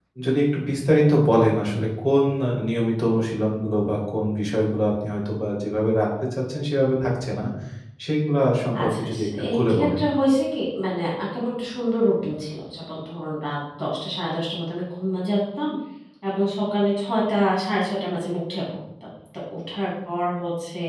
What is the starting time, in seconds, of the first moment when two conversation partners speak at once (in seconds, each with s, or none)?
8.8 s